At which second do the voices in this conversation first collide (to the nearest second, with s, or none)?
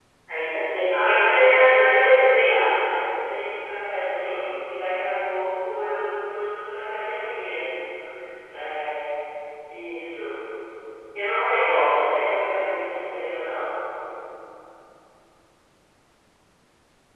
1 s